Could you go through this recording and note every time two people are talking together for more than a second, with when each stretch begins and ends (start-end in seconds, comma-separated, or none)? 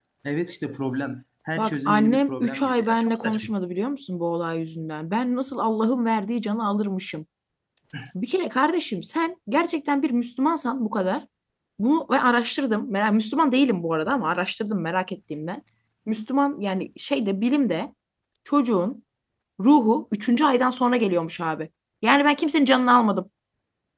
1.6-3.5